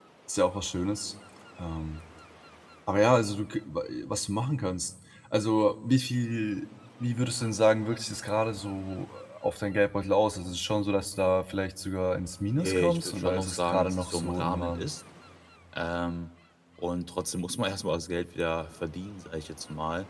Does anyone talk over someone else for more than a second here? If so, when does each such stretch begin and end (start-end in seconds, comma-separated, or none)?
12.5-14.9